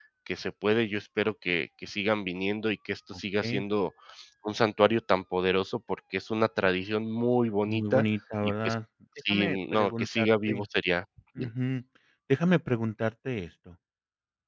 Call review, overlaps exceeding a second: present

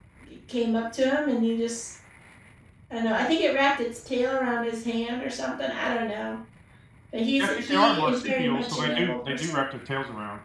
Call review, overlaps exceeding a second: present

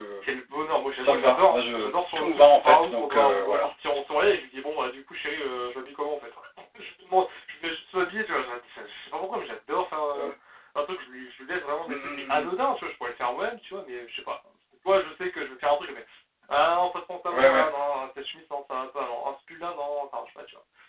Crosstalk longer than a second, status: present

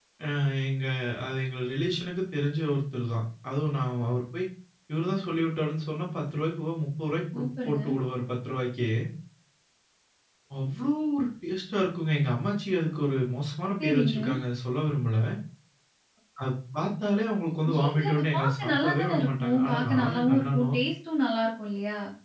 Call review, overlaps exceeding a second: present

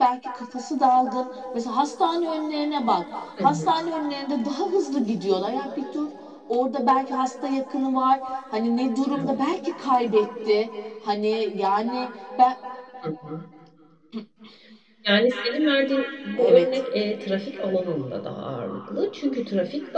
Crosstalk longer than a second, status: none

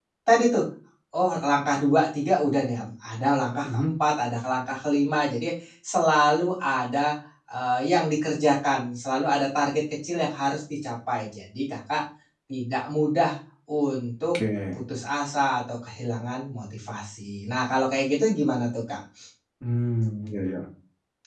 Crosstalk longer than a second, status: none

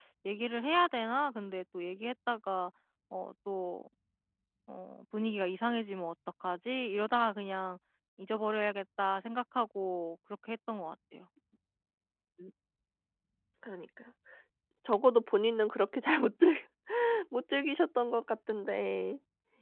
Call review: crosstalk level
none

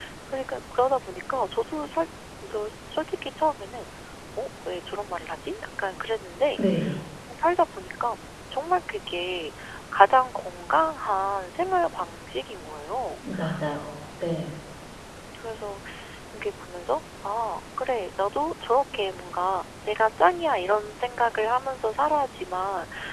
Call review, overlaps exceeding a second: none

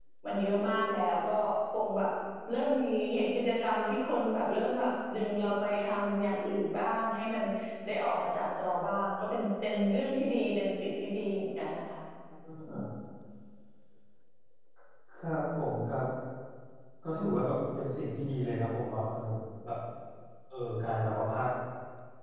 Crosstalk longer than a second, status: none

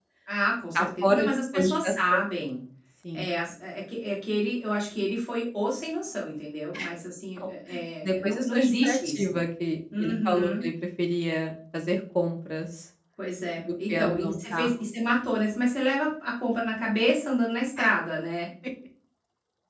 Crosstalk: present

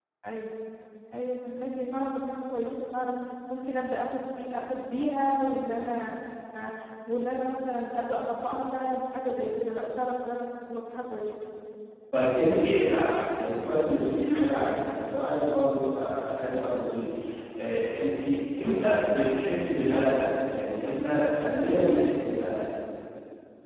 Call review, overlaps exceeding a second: none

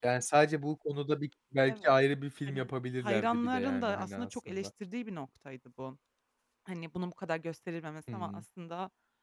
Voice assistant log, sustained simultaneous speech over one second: present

